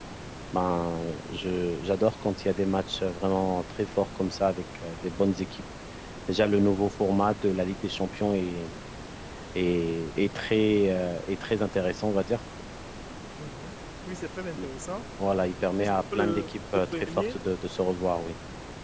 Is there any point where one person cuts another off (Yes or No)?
Yes